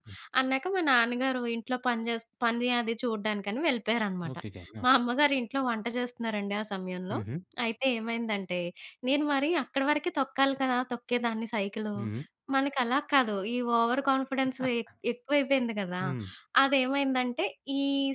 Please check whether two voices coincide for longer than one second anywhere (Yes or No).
No